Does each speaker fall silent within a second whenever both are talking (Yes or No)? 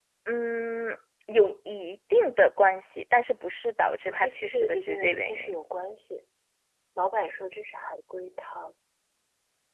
No